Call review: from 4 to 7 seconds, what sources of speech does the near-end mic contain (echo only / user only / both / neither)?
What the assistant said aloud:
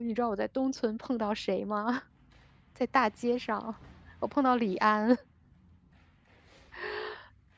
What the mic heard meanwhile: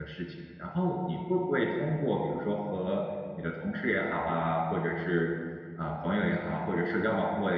user only